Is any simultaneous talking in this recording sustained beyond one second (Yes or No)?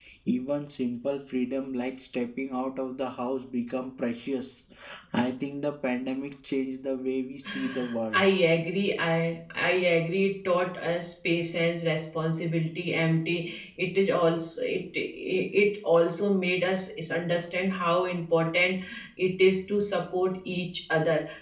No